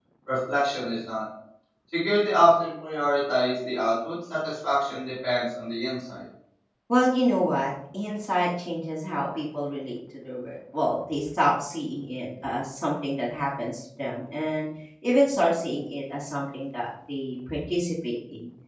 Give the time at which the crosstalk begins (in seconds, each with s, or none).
none